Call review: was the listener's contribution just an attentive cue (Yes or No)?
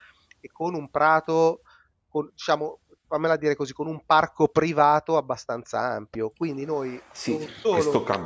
No